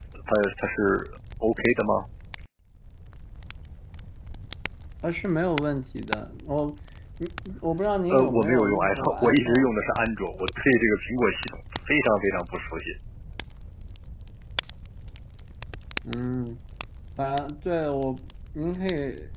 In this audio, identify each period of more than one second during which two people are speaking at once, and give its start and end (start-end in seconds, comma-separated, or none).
8.1-9.8